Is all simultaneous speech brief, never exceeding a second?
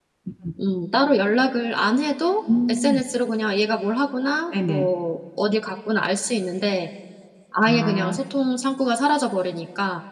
Yes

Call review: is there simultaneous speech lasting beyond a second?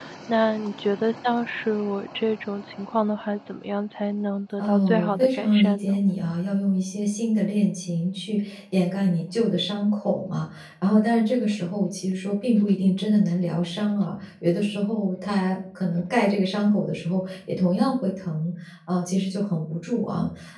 Yes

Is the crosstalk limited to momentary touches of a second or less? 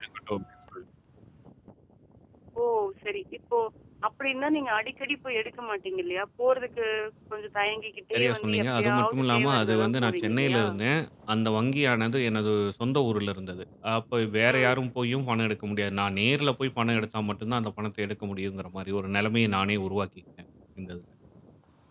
No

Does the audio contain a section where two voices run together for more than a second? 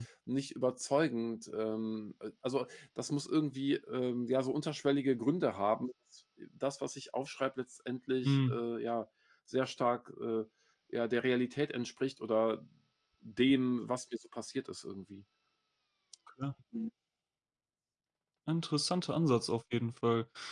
No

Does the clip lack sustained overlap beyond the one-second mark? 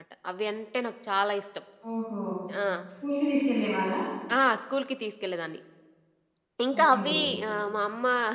Yes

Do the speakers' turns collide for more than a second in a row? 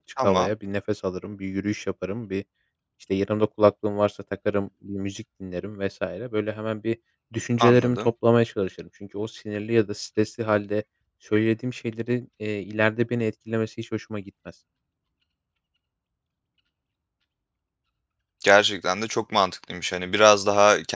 No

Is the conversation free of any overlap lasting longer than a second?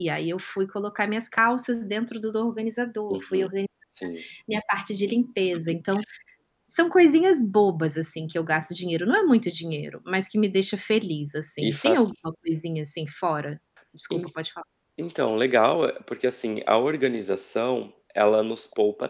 Yes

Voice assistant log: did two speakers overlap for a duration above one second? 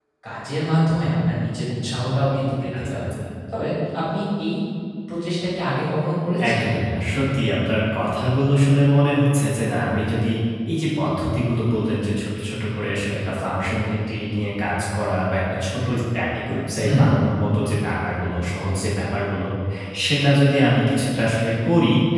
No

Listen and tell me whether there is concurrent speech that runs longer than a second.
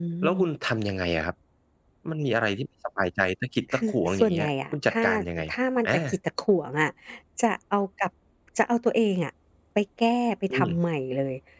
Yes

